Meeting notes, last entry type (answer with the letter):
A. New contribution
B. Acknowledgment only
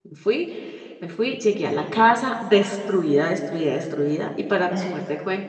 B